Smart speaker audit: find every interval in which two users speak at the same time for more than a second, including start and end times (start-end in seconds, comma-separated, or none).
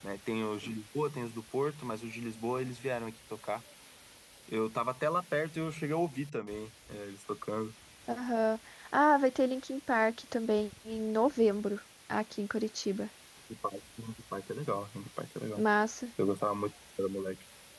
none